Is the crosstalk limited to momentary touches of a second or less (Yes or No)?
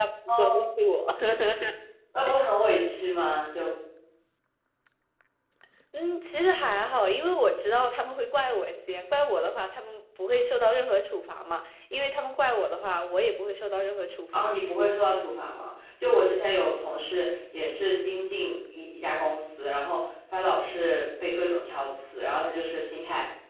Yes